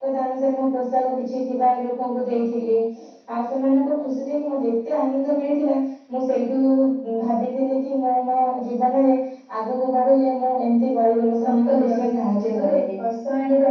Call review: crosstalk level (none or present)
present